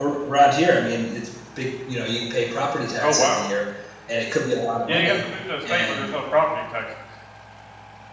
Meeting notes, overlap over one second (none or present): none